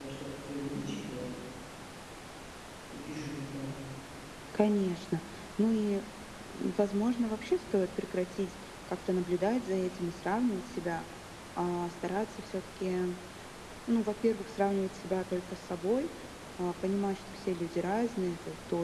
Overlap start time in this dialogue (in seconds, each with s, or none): none